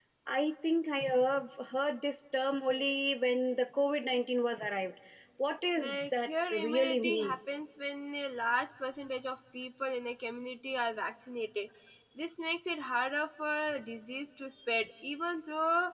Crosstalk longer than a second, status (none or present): present